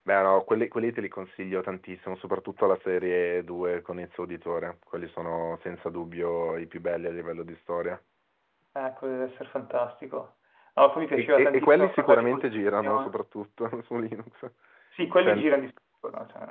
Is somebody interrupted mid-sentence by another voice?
Yes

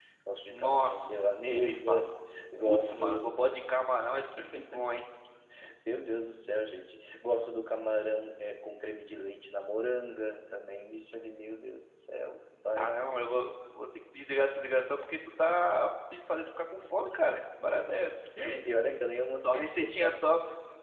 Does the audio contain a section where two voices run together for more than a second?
Yes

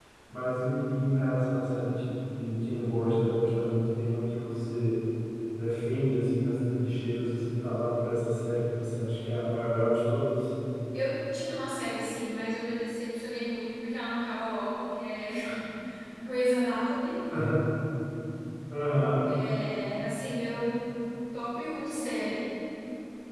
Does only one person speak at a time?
Yes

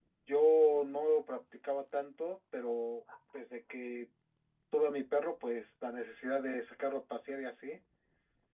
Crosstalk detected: No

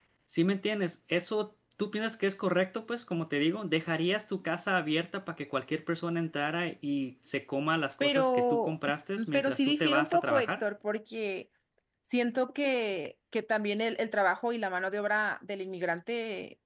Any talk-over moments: Yes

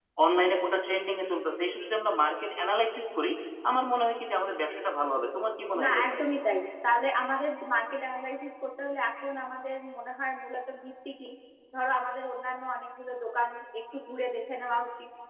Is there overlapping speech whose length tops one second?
No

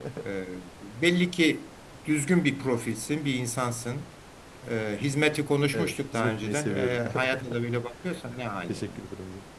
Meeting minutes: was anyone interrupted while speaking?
Yes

